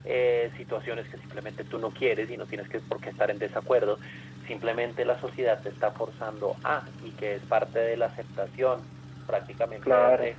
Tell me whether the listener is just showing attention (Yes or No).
Yes